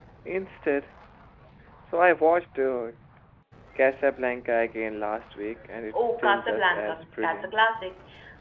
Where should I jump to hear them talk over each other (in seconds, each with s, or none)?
5.9 s